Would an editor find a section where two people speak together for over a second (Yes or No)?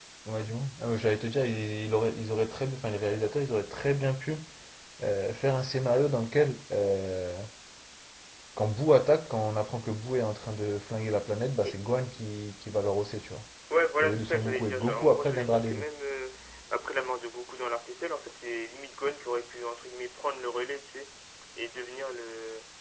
Yes